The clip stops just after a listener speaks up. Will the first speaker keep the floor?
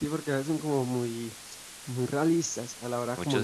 No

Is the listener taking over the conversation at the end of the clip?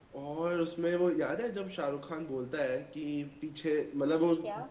No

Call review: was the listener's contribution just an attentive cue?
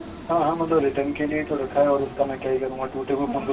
No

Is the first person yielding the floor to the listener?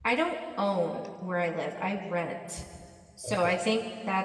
No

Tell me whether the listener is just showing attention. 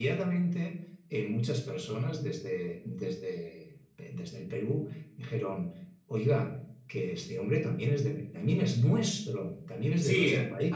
No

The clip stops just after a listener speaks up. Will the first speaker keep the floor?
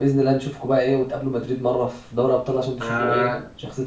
No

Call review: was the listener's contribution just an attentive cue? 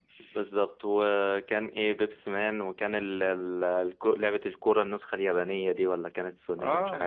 No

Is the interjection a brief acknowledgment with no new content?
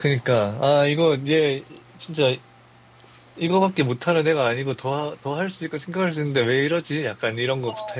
No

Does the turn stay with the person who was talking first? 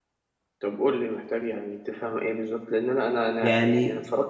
Yes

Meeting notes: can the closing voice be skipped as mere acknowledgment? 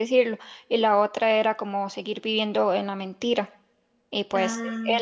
Yes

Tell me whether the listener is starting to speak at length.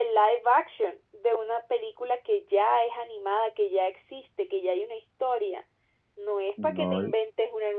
No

